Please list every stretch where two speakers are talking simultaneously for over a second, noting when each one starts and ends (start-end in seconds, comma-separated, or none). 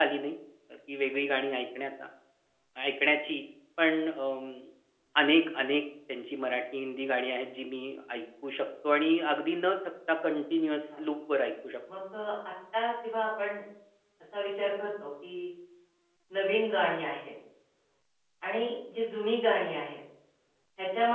none